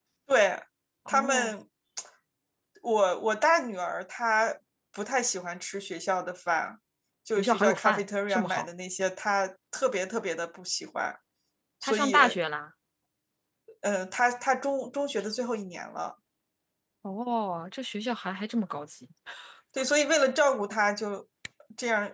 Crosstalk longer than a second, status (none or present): present